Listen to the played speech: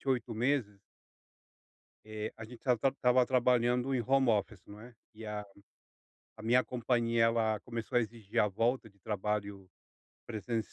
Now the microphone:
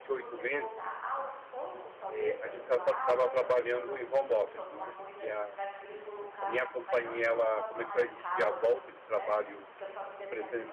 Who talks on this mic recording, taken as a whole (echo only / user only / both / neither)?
both